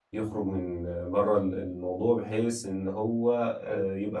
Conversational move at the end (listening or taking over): listening